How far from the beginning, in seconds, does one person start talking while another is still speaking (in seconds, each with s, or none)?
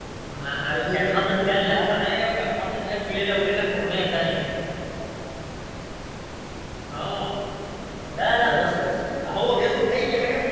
0.7 s